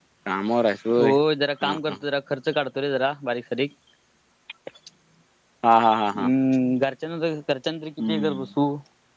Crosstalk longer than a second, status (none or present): none